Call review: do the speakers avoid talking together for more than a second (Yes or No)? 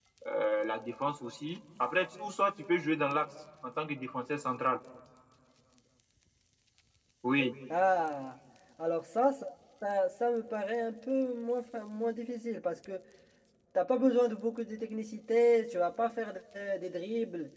Yes